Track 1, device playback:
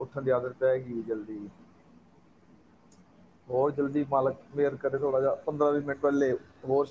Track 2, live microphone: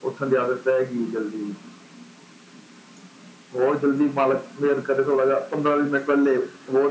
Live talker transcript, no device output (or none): none